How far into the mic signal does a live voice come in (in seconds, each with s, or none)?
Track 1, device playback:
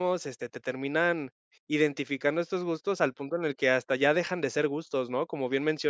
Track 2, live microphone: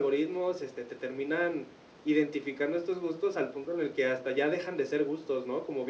none